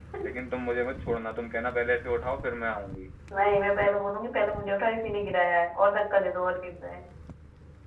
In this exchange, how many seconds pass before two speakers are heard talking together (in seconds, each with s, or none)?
none